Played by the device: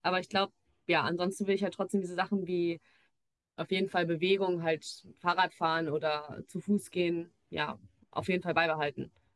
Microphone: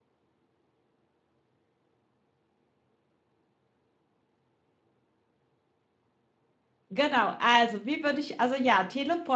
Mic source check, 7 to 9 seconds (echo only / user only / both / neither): user only